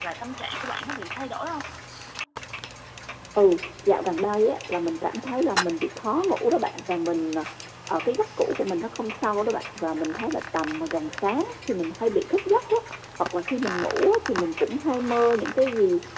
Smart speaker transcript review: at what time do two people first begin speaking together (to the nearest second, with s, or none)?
none